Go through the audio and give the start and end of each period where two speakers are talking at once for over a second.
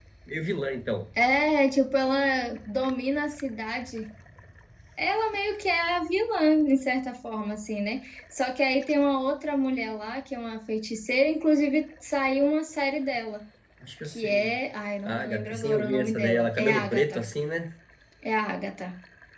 15.0-17.2

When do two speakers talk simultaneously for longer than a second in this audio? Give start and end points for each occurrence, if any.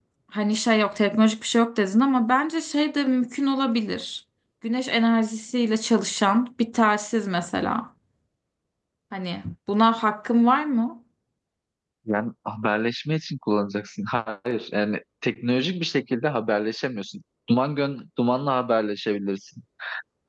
none

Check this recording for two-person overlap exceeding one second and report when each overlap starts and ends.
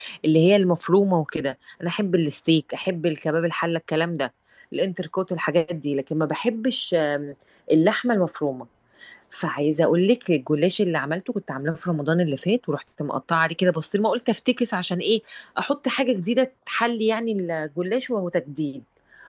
none

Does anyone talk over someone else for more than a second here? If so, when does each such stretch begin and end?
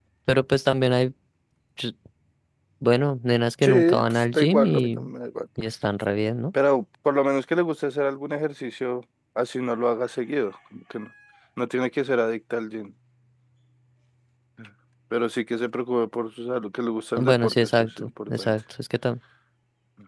3.6-5.0, 17.2-18.6

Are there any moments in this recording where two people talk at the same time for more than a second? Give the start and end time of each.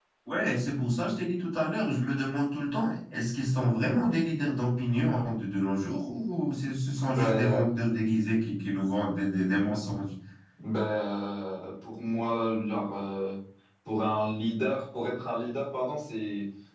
none

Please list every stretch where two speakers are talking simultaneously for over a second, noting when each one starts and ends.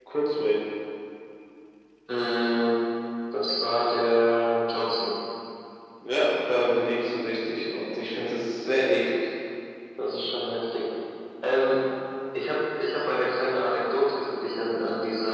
none

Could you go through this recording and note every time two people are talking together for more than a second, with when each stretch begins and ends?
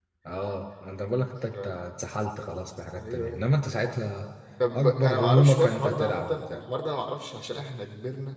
4.8-6.6

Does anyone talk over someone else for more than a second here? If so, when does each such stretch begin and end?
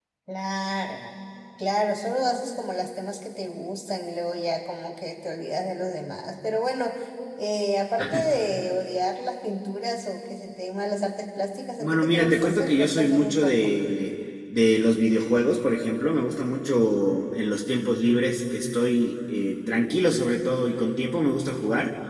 11.8-13.7

